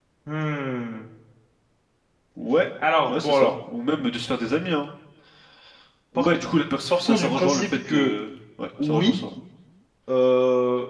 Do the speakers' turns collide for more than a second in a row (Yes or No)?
Yes